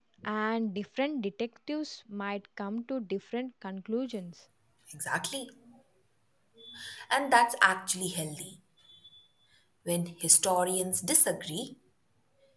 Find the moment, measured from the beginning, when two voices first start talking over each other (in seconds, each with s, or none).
none